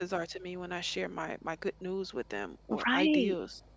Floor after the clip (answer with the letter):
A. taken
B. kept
A